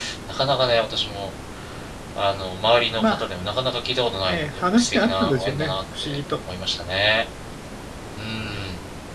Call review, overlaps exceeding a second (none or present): present